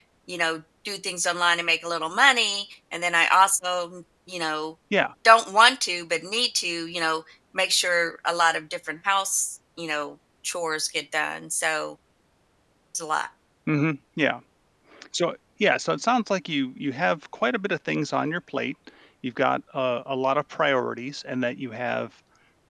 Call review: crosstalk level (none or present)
none